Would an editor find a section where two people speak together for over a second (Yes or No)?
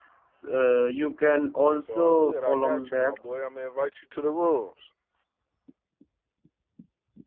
Yes